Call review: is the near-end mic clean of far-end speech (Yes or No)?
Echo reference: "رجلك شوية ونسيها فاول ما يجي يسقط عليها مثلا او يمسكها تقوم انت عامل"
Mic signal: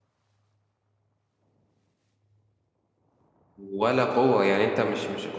Yes